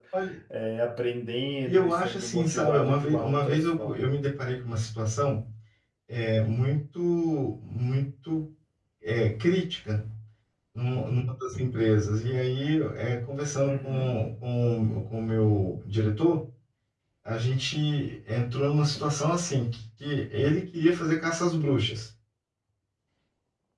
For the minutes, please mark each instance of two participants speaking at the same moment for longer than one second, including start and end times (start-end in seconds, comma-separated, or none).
1.6-4.1